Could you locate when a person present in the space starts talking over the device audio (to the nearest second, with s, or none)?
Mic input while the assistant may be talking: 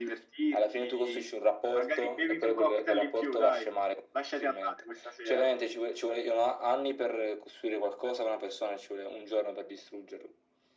none